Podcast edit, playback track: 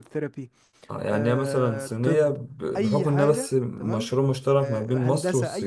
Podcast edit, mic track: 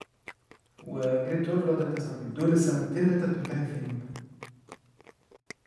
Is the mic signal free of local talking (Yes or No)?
No